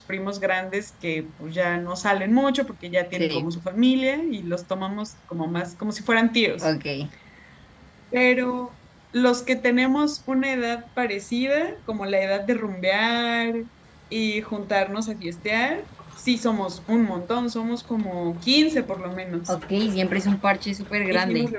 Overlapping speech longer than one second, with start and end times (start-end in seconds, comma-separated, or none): none